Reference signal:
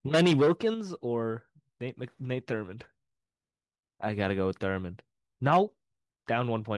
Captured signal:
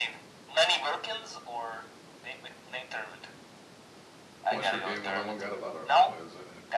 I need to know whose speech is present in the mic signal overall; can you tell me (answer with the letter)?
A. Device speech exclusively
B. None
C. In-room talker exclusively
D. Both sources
D